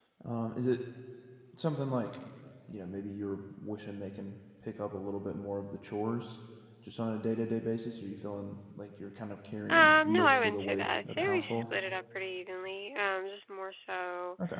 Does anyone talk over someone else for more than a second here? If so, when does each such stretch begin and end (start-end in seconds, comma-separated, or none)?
9.7-11.6